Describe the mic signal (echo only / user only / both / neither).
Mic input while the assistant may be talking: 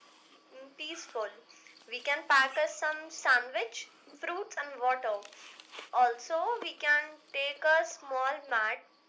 echo only